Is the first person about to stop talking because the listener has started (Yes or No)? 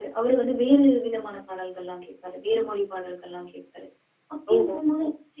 No